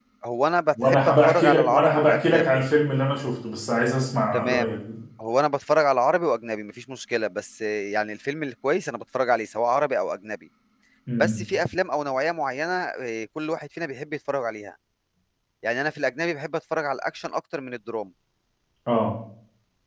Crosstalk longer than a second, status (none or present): present